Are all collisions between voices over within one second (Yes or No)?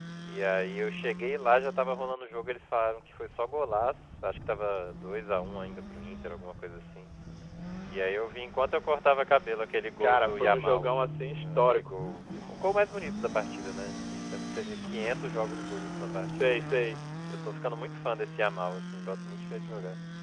No